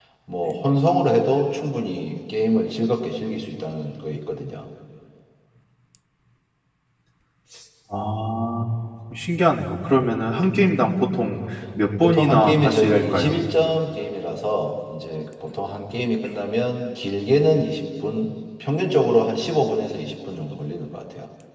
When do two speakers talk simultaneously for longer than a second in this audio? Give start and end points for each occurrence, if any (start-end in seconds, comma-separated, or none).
12.0-13.4